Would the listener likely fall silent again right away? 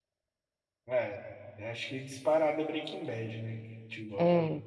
Yes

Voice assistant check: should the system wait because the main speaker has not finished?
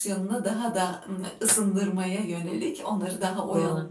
Yes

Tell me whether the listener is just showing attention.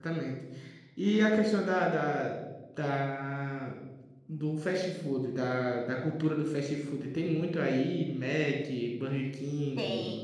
No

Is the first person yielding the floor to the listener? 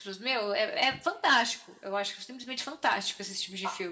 Yes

